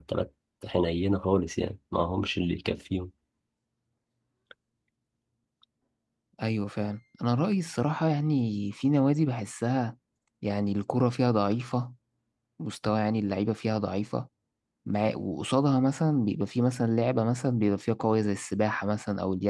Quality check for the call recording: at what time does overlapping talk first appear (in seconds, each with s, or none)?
none